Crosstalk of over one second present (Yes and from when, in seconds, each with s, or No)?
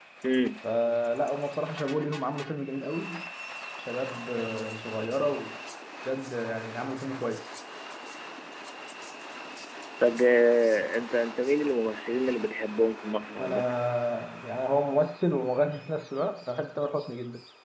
No